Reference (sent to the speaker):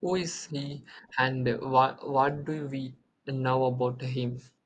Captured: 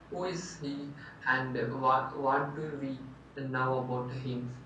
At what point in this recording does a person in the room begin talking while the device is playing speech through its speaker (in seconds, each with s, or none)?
none